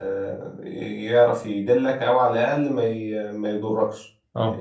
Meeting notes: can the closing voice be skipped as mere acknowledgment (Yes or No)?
Yes